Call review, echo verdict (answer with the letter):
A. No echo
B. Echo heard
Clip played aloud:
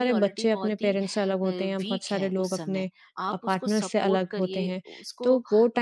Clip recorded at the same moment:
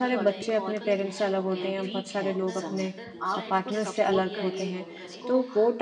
B